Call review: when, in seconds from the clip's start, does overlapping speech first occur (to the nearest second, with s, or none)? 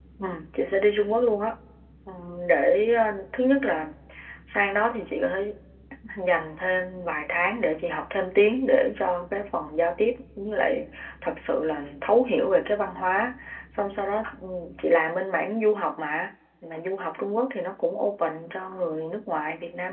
none